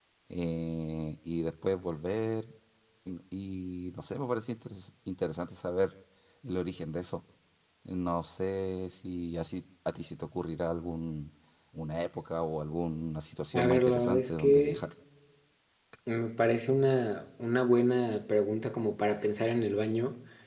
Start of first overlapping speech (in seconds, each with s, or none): 13.5 s